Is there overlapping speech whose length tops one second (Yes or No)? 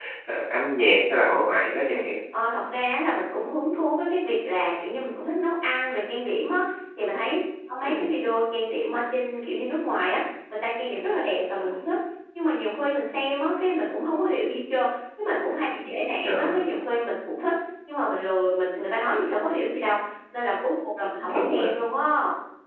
No